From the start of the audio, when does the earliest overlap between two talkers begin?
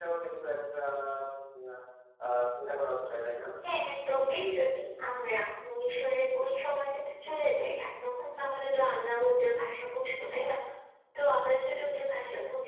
none

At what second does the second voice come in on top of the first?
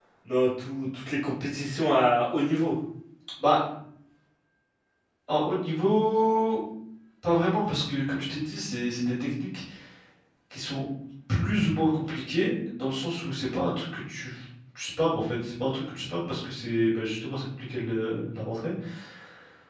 none

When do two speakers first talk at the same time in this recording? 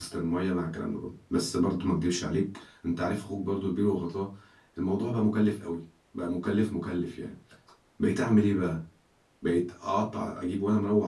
none

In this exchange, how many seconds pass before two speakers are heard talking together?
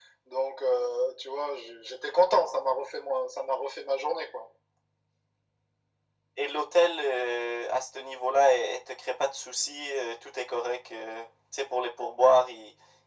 none

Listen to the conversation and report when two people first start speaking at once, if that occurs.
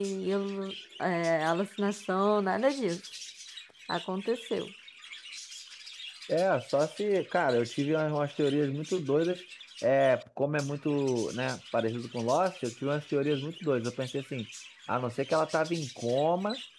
none

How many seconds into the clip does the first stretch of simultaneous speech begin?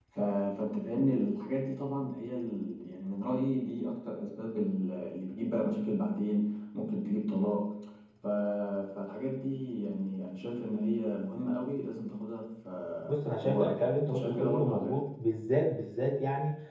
13.2 s

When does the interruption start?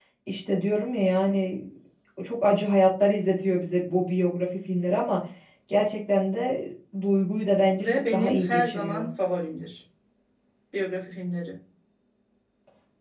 7.8 s

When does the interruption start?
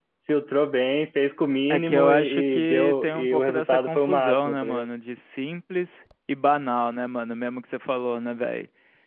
1.7 s

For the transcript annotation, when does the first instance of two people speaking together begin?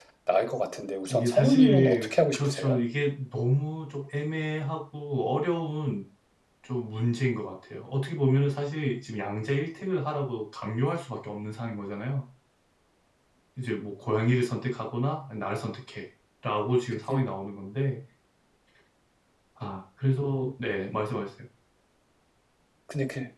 1.1 s

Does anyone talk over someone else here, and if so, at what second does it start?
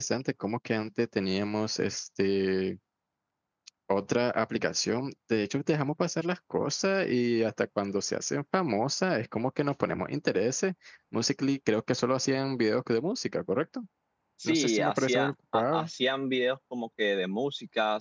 14.4 s

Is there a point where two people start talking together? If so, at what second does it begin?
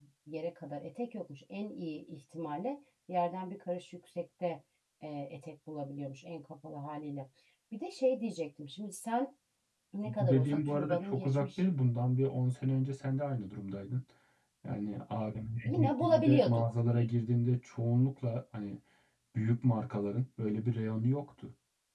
10.2 s

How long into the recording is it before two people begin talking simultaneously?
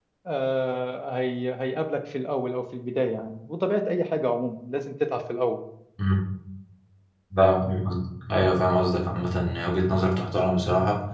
none

